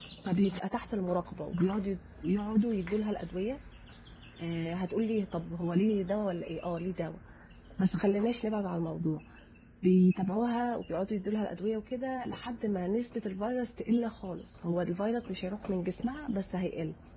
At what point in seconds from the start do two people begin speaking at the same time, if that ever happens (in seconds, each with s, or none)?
none